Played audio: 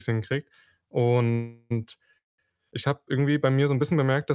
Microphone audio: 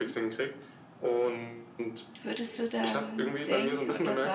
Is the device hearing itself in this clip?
Yes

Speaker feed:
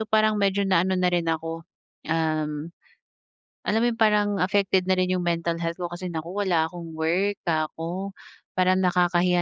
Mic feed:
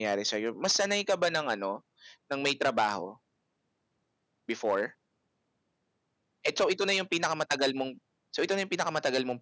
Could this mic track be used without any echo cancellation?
Yes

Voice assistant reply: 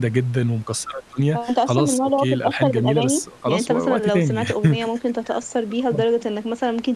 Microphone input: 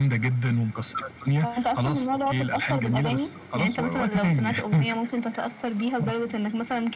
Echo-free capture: No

